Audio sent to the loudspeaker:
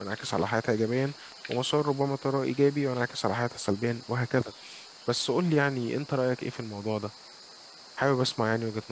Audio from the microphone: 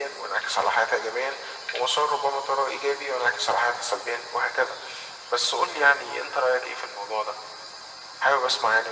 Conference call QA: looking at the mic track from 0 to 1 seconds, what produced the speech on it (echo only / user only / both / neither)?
echo only